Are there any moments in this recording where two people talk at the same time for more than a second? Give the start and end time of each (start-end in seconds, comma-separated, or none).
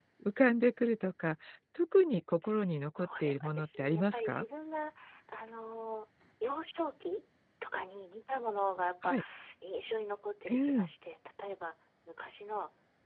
3.0-4.4